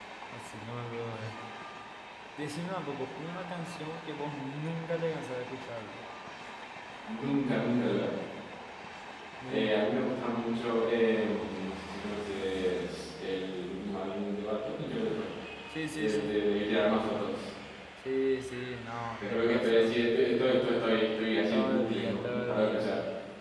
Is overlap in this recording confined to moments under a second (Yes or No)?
No